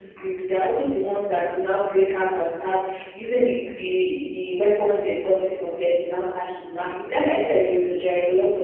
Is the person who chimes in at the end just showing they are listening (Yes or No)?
Yes